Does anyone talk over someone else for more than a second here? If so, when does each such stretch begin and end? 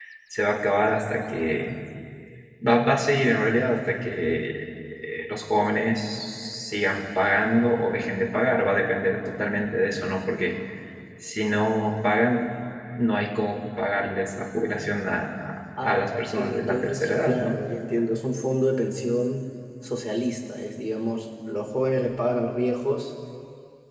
15.8-17.6

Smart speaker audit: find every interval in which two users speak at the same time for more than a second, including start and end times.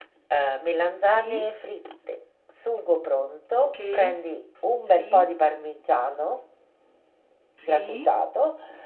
none

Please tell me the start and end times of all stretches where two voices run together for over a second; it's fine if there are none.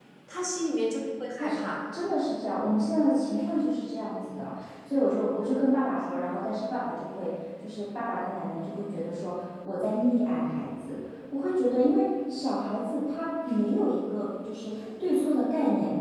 none

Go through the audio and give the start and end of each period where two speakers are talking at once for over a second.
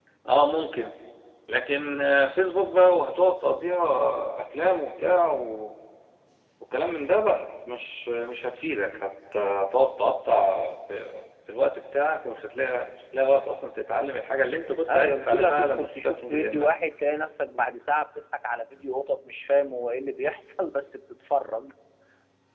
14.9-16.7

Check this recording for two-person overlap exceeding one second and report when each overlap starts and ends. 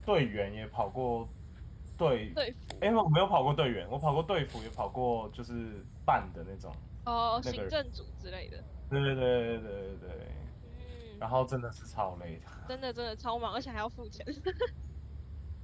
none

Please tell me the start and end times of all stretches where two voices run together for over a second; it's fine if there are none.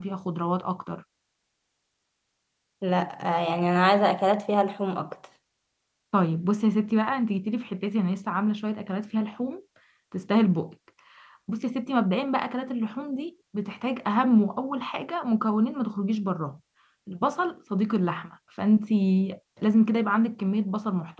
none

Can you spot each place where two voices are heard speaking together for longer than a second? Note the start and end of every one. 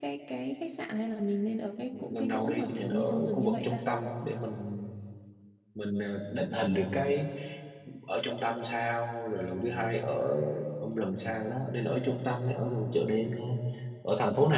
1.9-3.8

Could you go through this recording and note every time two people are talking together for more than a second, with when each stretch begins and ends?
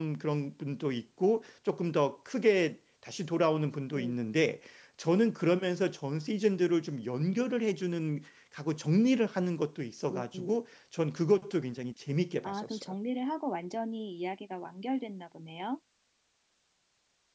none

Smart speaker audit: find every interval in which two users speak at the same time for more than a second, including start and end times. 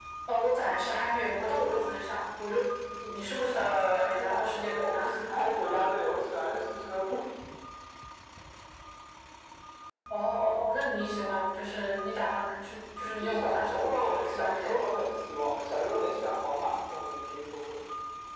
3.5-5.0, 13.2-15.0

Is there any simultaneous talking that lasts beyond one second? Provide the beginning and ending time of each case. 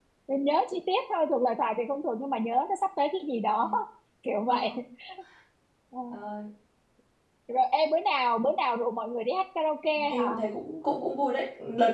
none

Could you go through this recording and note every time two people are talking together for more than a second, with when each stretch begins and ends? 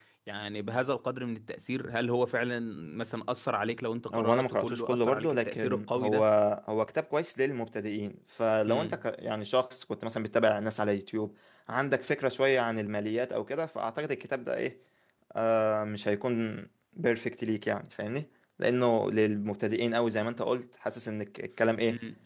4.1-6.2

